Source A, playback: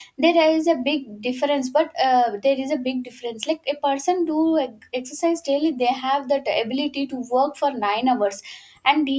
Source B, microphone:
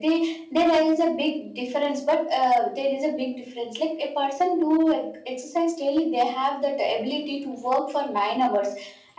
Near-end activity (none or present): none